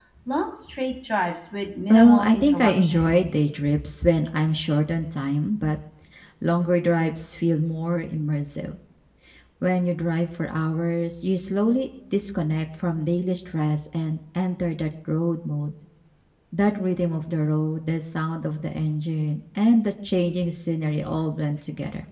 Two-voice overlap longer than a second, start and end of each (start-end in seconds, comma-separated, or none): 1.9-3.3